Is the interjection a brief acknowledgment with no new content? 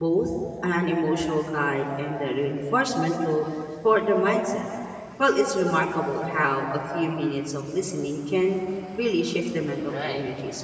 No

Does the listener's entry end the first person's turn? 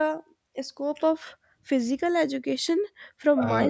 No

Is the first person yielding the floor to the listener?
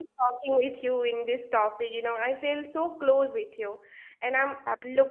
No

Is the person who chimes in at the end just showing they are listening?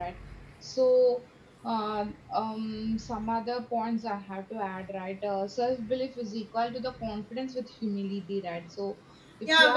No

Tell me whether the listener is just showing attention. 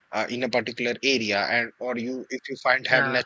Yes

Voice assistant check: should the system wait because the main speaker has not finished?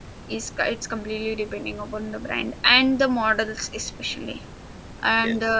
Yes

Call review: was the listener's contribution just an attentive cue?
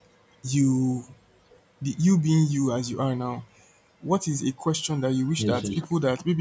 Yes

